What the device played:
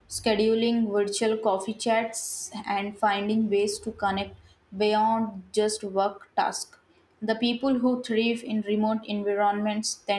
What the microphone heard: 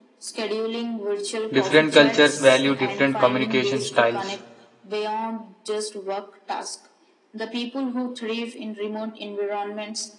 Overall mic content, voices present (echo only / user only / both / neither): both